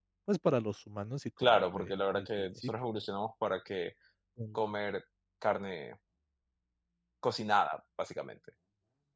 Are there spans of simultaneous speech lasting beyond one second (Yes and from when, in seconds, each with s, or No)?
Yes, from 1.4 s